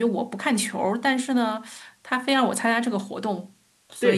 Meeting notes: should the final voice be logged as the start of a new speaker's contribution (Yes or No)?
Yes